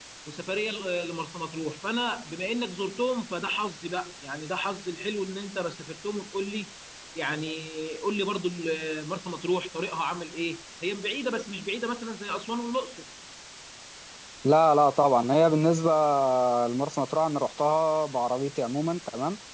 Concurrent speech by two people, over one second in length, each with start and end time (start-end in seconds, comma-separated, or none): none